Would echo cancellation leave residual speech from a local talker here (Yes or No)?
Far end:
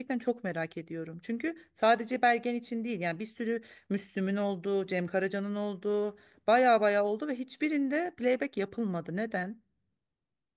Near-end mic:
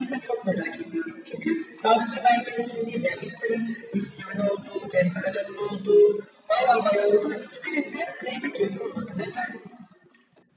No